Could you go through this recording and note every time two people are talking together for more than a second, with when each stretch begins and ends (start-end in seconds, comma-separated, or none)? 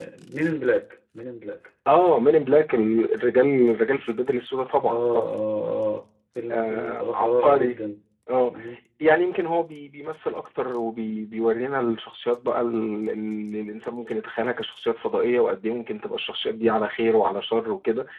6.5-7.8